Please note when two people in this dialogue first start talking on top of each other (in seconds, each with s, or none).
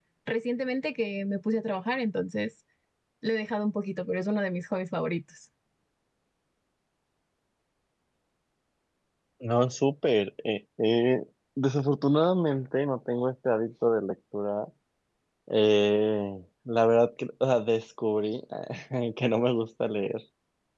none